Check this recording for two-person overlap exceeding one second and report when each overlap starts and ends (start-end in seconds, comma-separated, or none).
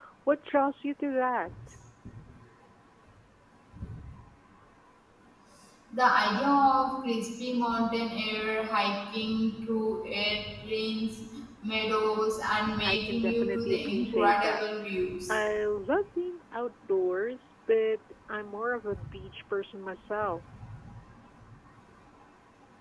12.8-14.6